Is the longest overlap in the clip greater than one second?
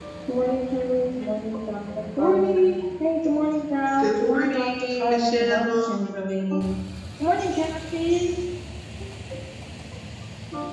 Yes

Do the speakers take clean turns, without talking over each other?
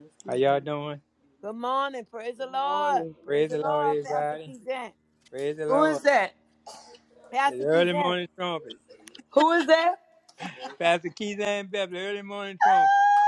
No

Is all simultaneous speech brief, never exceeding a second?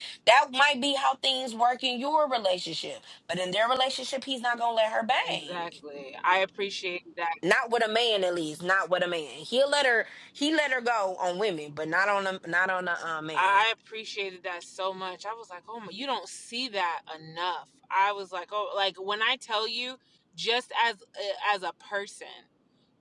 Yes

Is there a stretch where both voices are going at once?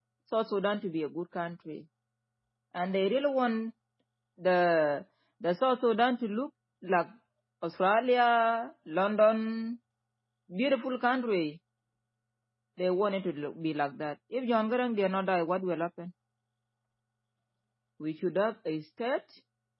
No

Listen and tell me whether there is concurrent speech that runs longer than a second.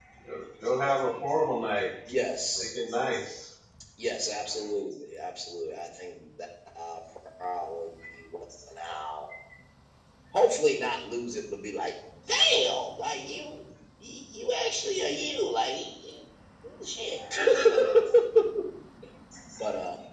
No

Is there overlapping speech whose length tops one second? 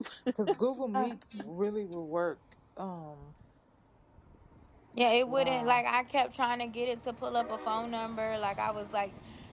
No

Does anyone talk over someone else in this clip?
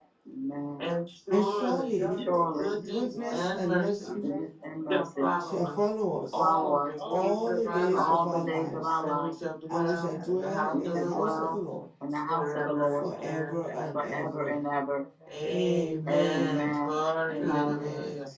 Yes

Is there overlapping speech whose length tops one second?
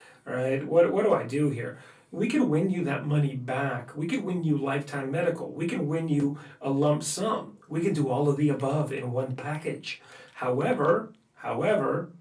No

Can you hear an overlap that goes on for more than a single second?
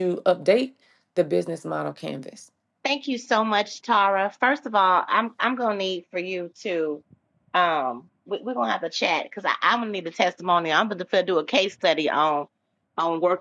No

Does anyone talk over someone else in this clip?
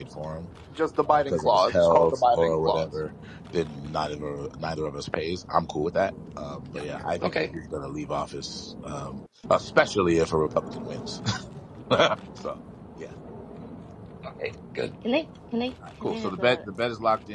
No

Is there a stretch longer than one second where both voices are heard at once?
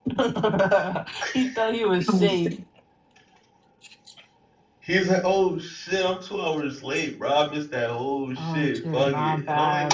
Yes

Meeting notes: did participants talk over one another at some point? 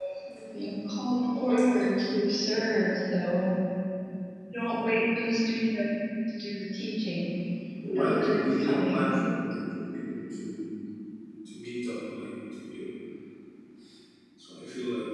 Yes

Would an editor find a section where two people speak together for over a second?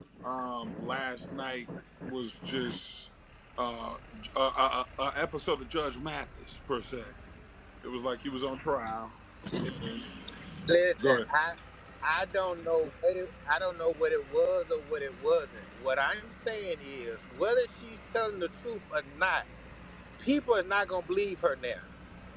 No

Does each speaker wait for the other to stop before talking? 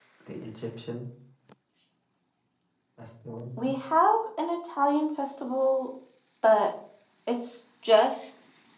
Yes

